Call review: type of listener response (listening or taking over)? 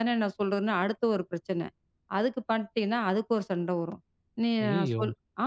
listening